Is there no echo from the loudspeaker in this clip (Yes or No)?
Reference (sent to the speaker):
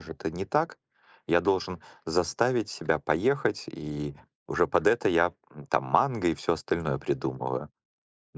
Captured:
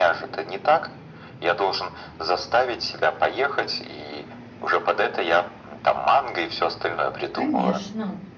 No